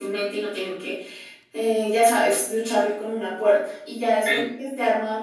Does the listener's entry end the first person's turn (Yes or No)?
No